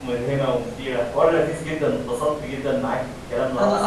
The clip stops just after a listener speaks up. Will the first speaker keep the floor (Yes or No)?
Yes